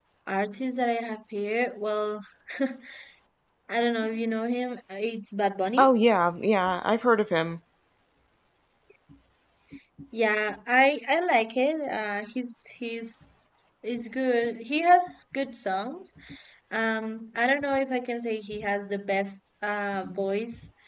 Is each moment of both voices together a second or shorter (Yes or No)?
Yes